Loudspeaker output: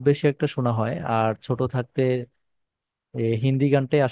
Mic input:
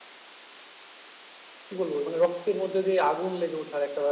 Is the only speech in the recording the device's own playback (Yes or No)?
No